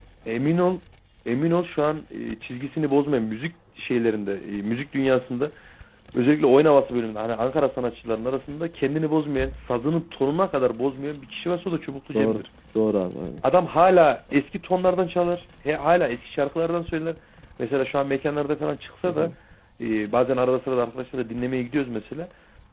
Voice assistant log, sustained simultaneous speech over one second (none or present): none